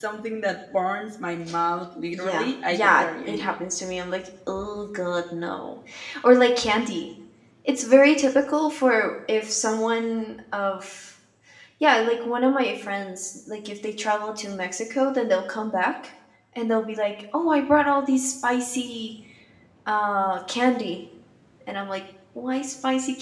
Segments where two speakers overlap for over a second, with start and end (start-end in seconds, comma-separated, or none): 2.1-3.5